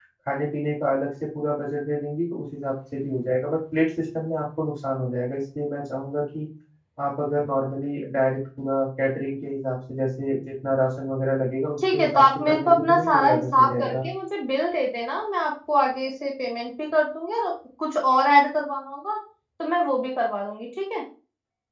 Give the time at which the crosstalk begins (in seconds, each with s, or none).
11.8 s